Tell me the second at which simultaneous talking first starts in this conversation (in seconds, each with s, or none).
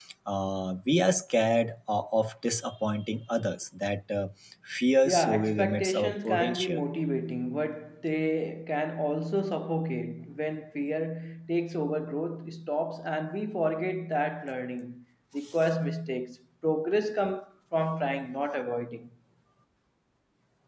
5.0 s